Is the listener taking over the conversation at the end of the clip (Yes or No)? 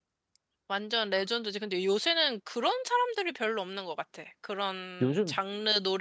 No